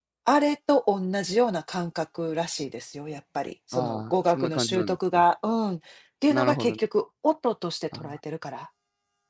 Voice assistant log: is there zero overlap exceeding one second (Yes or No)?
No